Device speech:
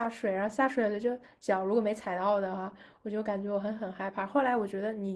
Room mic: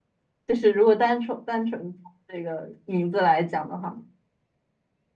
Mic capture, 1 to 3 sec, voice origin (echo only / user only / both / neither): user only